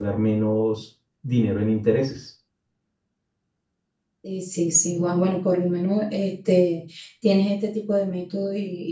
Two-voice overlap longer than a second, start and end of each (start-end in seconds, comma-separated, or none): none